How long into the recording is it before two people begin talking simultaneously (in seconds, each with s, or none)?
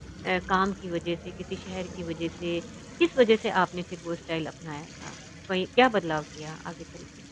none